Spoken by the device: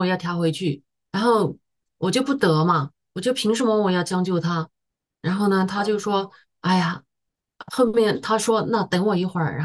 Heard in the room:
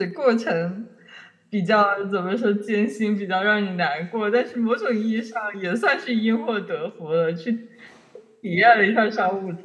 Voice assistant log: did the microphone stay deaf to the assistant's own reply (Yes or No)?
Yes